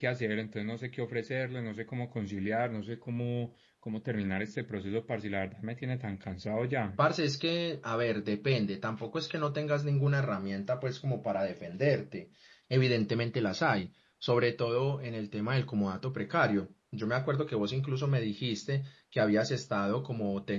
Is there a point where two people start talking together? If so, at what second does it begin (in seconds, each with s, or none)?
none